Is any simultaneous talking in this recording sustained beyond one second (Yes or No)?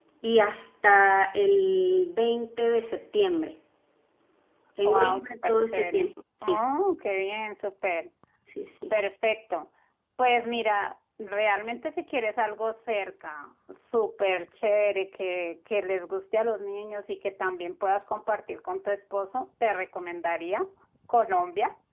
Yes